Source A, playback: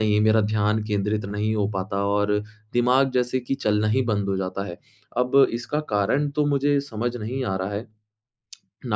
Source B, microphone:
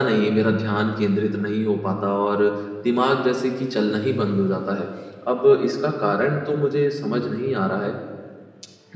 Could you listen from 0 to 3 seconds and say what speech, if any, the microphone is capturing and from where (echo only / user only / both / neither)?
echo only